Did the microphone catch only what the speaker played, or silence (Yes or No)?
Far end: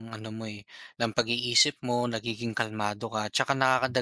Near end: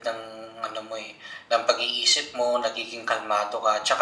Yes